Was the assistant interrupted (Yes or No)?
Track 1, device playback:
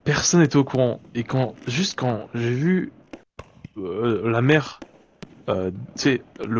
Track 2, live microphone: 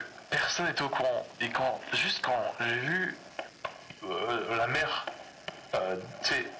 No